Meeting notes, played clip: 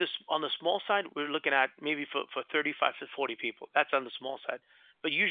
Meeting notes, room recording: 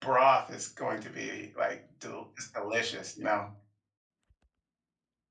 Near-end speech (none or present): present